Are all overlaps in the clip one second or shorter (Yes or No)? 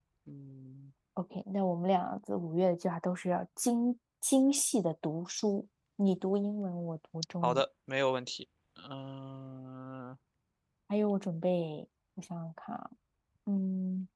Yes